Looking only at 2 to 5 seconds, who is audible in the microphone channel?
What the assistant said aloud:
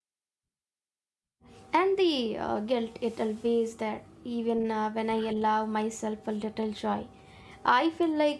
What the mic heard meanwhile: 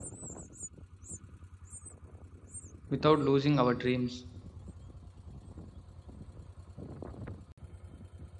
user only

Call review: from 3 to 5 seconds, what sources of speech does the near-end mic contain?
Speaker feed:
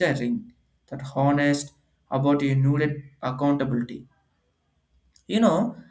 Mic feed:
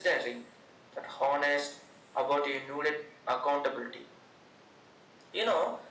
echo only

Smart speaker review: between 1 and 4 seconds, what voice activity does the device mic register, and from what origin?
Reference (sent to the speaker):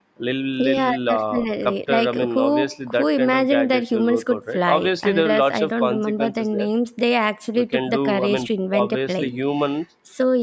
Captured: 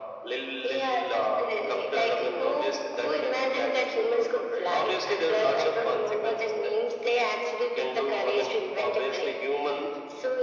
echo only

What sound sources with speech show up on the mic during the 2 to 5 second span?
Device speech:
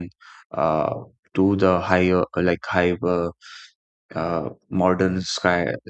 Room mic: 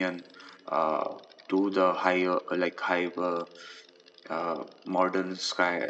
echo only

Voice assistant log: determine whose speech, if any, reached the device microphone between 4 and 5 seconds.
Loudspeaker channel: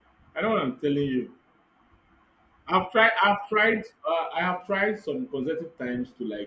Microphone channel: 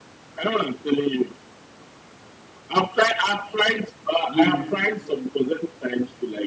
both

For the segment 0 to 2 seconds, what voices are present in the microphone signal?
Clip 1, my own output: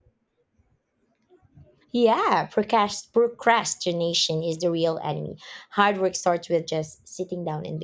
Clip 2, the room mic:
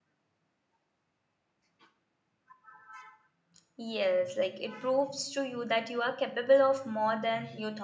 neither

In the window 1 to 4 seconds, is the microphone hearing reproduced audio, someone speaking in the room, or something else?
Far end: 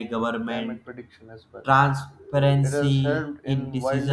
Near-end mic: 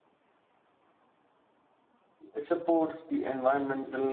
user only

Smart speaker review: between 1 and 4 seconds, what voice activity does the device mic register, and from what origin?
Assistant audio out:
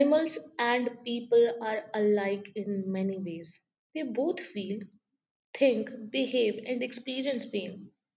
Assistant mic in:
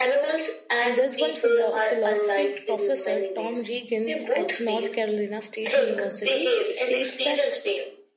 both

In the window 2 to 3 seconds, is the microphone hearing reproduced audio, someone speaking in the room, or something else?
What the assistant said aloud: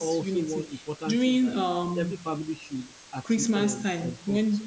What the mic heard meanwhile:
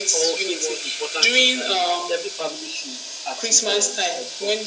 echo only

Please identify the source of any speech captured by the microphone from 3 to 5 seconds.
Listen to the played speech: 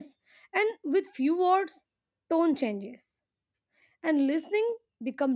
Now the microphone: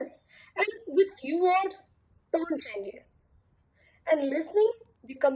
echo only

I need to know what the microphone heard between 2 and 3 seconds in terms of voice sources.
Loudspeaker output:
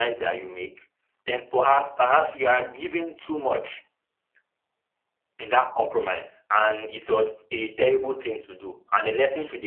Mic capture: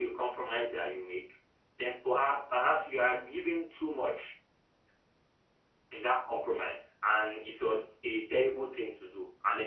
echo only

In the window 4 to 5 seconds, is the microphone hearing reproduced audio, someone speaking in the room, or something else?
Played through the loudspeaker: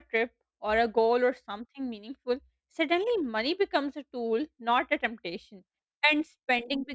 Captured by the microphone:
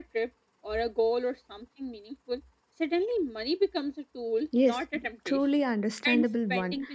both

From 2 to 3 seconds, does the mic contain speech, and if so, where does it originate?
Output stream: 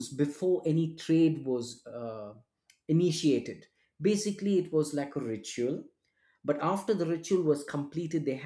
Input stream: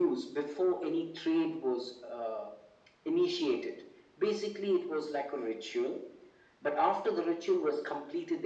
echo only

